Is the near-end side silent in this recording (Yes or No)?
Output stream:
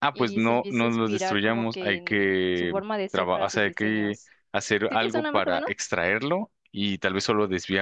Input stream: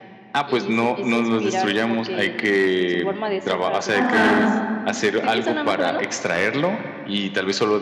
No